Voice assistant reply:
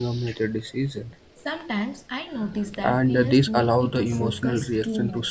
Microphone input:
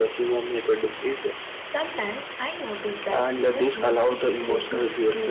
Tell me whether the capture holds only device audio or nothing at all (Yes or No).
Yes